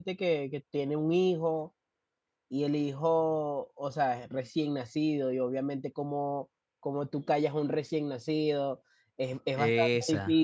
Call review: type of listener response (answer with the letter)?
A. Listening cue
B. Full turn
A